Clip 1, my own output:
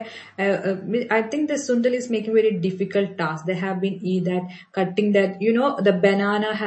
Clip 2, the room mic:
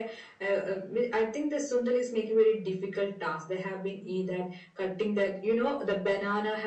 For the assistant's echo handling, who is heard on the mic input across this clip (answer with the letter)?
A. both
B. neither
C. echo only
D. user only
C